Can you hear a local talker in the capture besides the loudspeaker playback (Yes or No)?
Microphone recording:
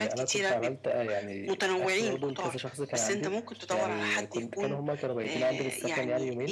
No